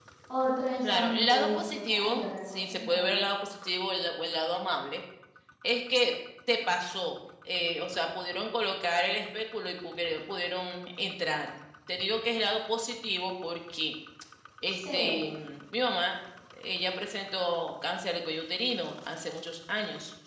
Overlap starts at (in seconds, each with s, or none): 0.8 s